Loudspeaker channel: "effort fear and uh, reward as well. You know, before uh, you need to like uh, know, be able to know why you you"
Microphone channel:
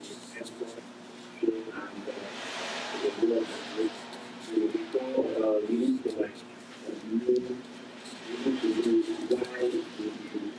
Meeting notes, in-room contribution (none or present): none